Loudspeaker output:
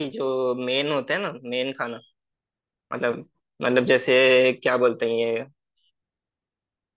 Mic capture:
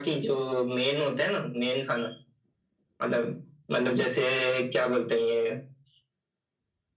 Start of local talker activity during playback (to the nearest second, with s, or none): none